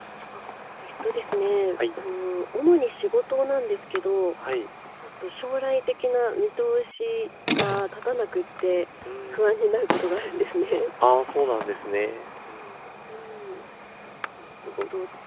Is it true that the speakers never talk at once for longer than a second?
Yes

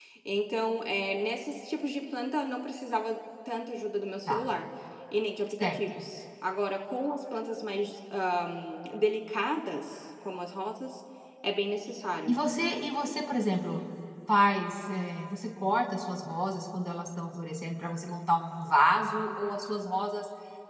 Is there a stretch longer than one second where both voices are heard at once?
No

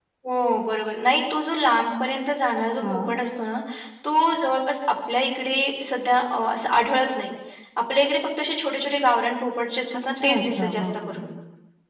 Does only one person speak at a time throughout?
No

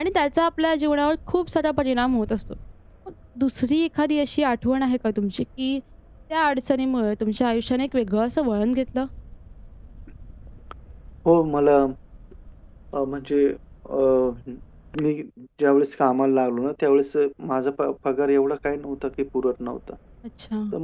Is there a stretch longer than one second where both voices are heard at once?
No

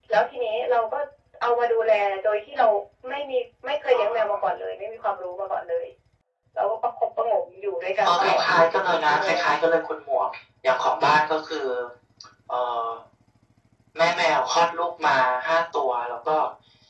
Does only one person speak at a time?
No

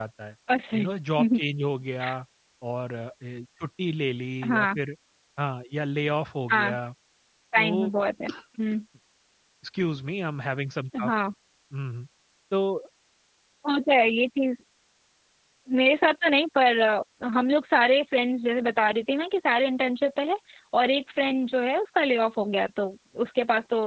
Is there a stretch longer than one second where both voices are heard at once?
No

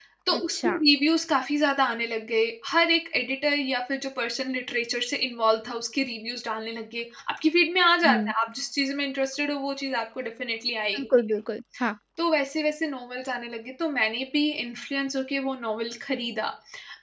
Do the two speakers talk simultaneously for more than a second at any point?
No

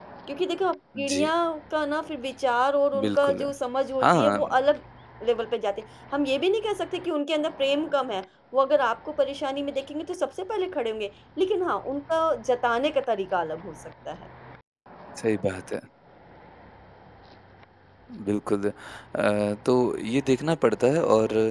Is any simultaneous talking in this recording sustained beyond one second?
No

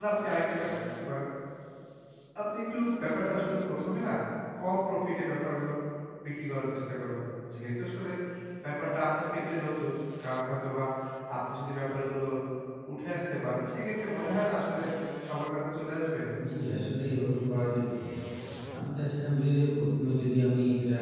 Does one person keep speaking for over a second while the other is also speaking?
No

